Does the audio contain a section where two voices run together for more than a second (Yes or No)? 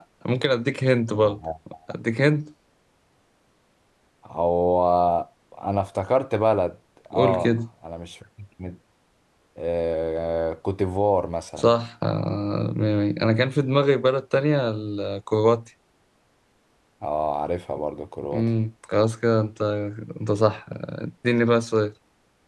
No